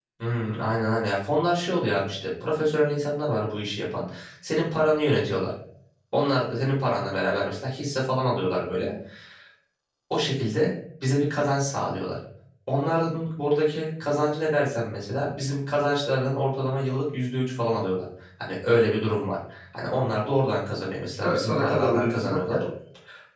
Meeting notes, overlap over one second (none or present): present